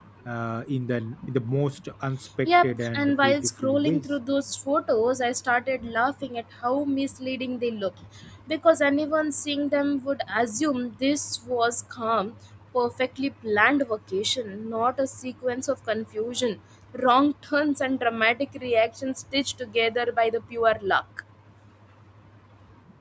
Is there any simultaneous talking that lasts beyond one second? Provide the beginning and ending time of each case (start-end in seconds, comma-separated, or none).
2.4-4.0